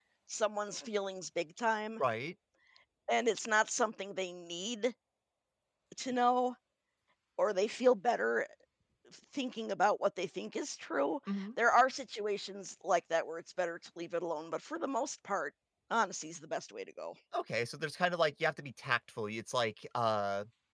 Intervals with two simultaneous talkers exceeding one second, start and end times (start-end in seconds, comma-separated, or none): none